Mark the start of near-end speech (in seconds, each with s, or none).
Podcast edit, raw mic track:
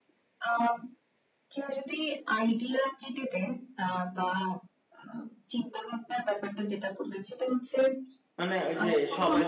8.4 s